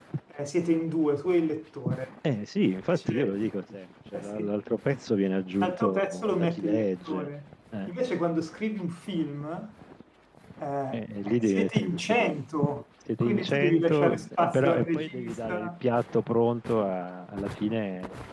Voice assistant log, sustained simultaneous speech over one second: present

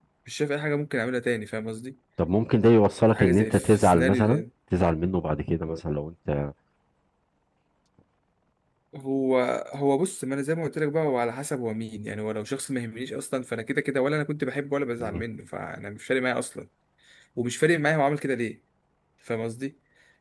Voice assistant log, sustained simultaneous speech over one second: present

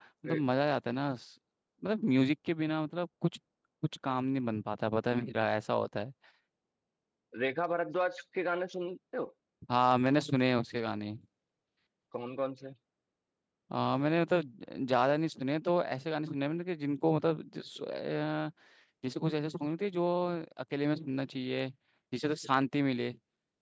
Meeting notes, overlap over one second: none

